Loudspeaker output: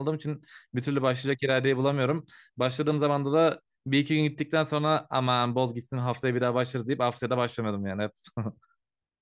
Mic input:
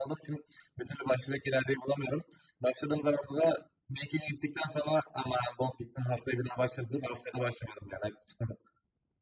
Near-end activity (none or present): none